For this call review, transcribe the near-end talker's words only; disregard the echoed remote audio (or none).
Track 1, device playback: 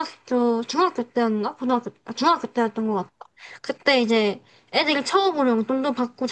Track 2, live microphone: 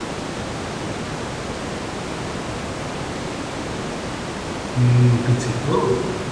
음, 그치. 너는,